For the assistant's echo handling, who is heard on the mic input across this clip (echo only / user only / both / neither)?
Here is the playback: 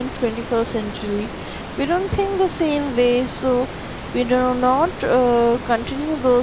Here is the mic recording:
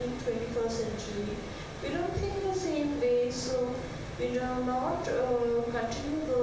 echo only